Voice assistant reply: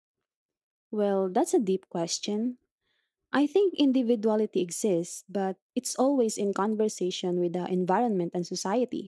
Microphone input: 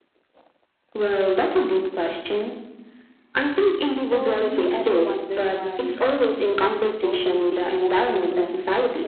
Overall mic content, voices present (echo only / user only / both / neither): both